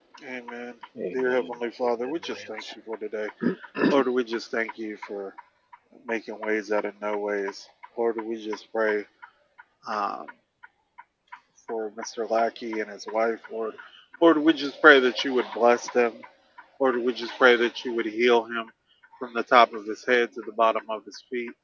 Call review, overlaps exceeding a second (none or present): present